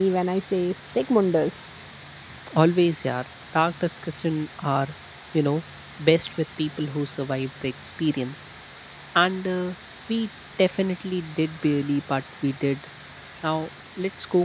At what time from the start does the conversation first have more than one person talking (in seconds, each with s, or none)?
none